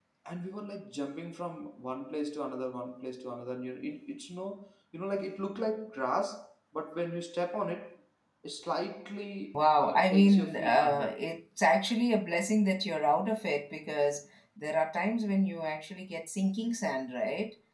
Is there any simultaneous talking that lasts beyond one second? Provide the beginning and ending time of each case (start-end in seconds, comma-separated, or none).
9.5-11.2